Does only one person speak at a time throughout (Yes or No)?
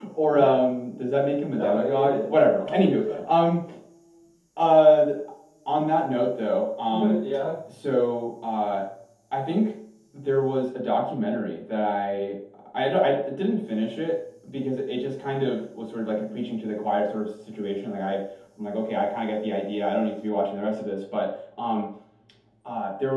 No